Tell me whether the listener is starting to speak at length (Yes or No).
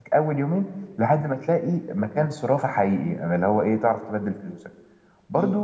No